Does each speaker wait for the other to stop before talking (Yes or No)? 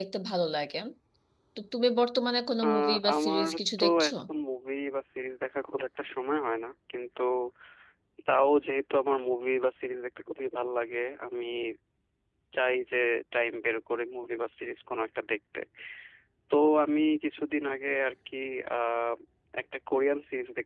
No